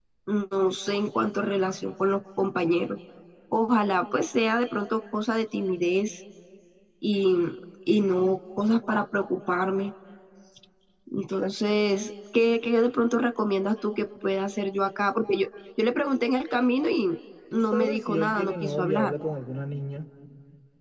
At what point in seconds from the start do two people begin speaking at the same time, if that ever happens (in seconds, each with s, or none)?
17.5 s